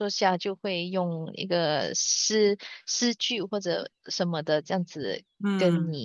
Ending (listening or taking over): listening